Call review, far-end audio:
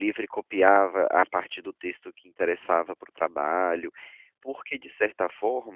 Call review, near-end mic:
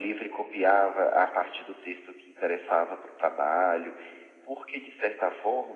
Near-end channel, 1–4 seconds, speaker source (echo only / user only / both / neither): echo only